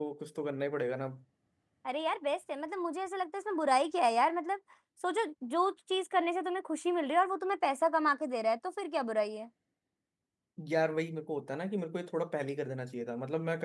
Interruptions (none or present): none